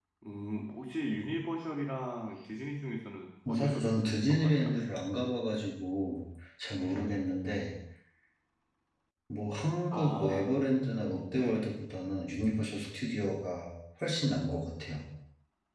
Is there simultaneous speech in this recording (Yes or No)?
Yes